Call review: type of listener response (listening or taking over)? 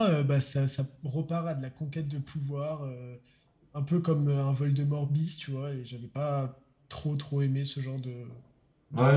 taking over